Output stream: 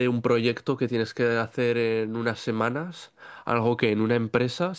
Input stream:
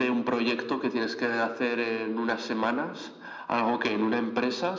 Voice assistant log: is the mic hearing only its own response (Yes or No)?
Yes